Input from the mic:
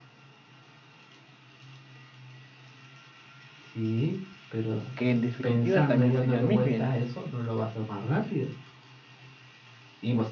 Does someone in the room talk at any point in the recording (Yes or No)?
Yes